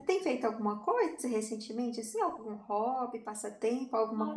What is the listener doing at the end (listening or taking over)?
taking over